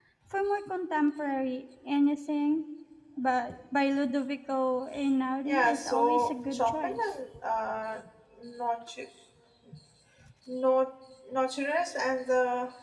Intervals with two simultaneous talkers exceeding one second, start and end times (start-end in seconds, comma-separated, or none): 5.5-7.0